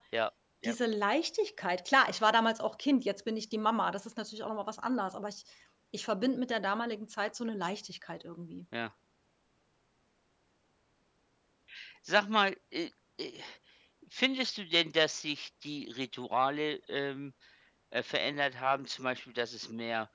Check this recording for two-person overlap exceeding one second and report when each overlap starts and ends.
none

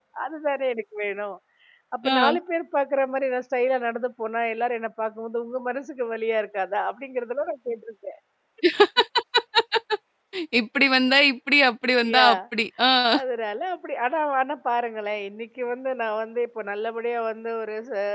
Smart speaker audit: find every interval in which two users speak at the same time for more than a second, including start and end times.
none

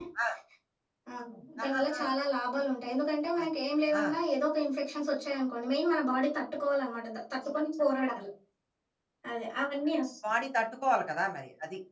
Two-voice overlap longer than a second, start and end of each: none

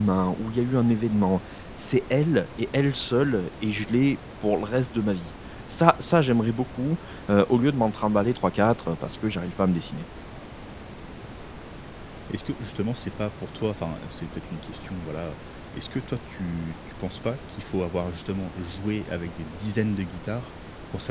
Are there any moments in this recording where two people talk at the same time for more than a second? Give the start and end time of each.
none

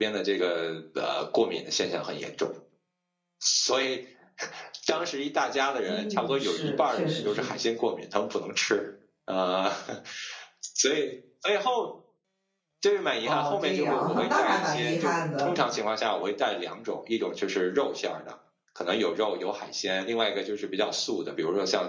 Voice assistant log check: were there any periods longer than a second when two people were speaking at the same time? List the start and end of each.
5.9-7.5, 13.2-15.5

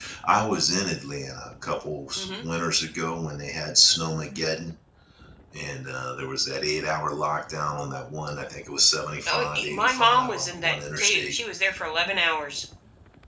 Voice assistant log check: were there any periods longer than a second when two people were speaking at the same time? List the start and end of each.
9.3-11.3

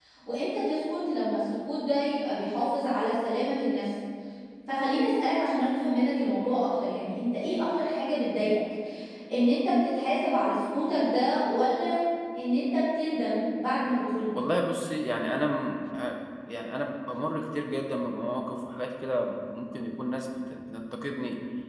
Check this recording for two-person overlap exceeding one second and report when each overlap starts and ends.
none

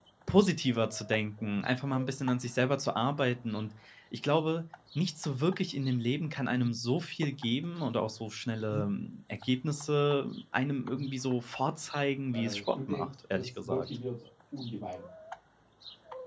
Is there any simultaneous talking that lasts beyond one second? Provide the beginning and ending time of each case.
12.3-13.9

